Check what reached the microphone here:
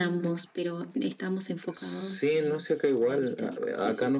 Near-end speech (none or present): none